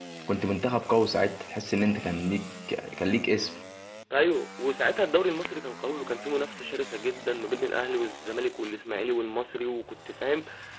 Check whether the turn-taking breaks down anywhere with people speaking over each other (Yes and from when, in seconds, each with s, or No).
No